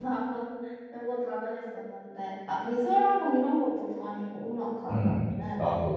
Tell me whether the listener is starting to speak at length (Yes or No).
Yes